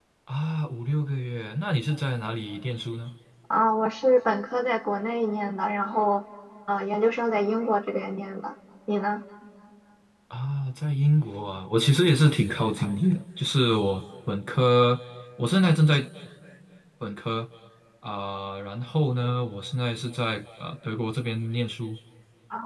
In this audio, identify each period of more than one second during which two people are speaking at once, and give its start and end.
none

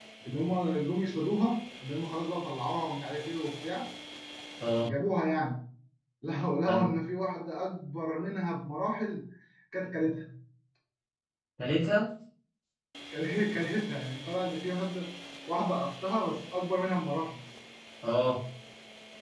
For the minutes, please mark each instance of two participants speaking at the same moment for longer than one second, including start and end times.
none

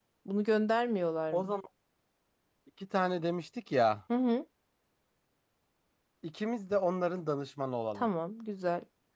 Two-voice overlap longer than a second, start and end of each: none

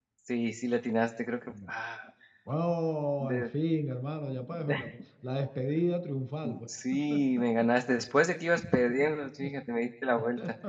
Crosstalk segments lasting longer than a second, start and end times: none

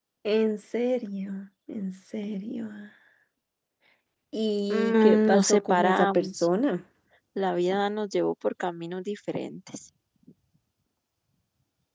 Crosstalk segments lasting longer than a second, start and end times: 4.7-6.5

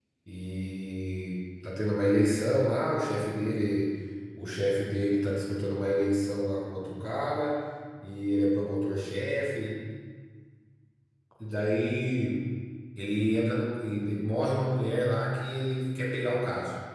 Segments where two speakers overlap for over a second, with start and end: none

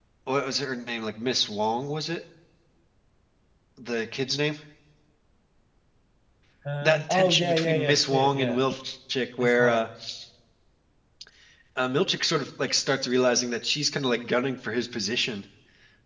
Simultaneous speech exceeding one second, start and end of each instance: 6.8-8.6

